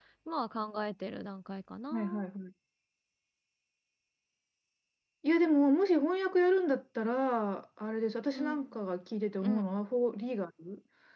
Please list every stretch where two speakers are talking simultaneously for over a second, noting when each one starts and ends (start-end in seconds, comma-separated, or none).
none